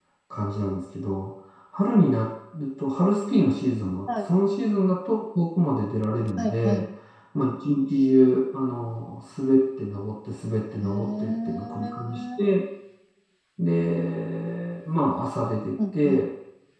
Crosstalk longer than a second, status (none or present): present